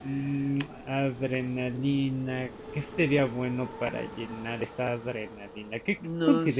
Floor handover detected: No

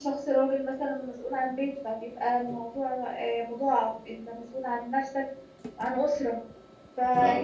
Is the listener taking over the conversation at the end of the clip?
No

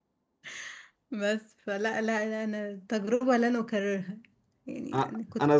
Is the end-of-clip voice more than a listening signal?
Yes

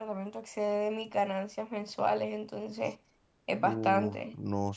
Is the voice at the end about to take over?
Yes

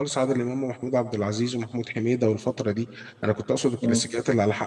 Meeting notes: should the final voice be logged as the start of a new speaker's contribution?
No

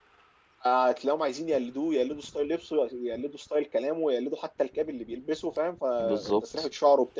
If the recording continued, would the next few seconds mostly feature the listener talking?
No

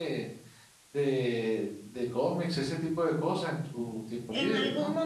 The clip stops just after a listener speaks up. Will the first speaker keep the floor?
No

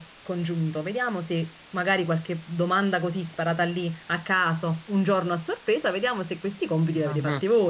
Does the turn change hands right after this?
No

